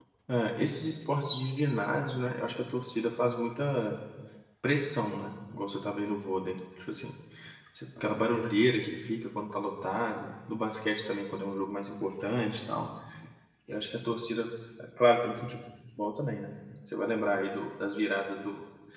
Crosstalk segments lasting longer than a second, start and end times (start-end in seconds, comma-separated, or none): none